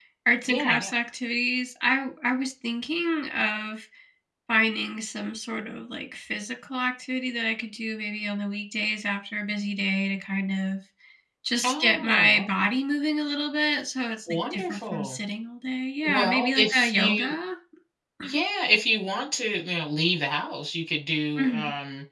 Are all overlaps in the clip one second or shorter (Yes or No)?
No